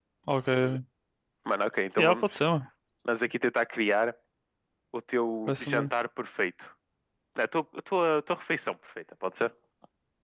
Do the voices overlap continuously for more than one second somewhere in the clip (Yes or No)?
No